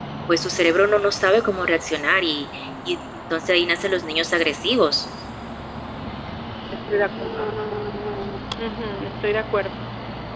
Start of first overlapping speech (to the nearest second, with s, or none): none